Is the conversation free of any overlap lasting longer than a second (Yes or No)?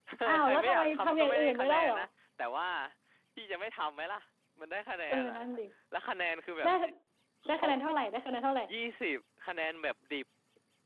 No